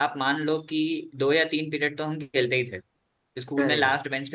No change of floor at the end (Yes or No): Yes